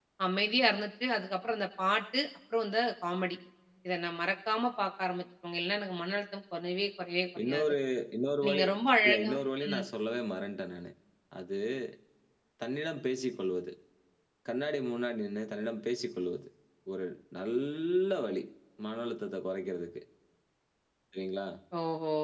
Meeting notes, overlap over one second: none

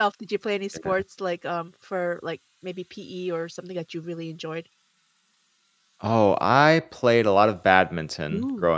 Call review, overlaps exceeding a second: none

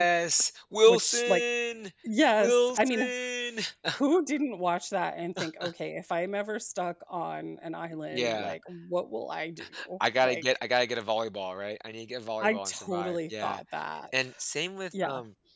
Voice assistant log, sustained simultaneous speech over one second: present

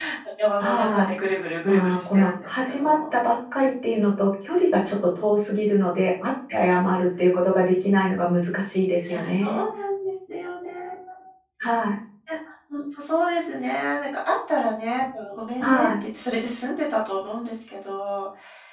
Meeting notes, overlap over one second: present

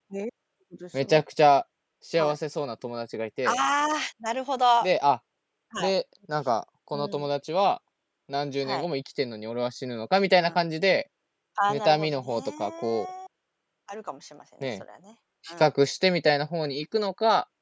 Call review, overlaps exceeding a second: present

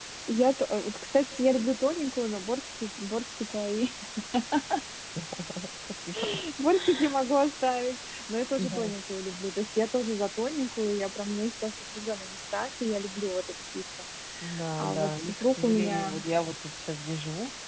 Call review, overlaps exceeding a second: present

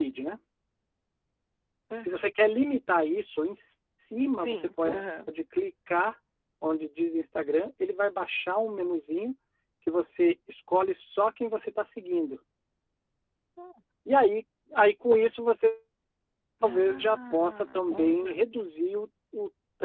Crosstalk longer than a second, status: present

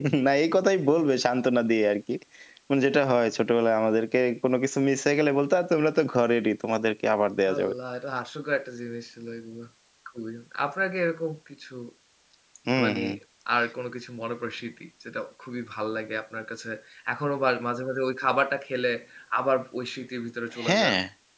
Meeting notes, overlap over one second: none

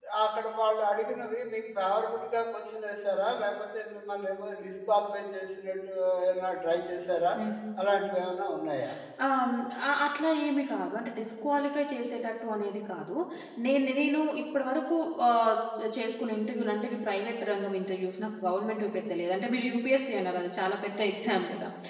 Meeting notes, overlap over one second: none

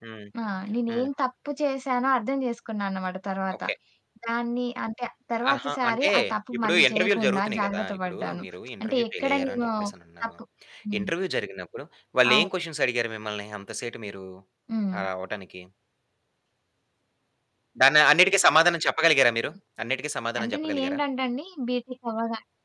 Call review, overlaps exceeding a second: present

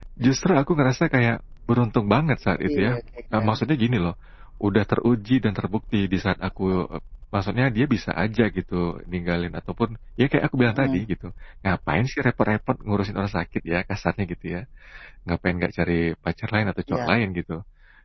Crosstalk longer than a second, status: none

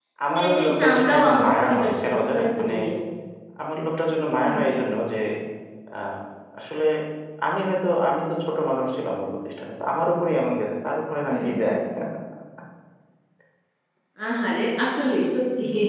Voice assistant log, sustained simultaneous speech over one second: present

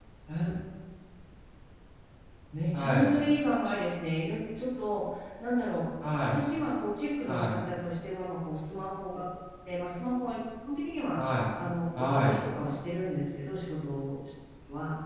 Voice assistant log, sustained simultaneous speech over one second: none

